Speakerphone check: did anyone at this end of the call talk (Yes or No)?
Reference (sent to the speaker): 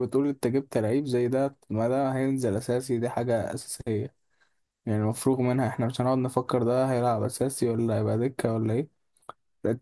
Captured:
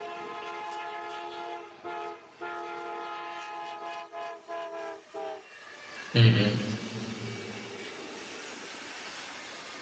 Yes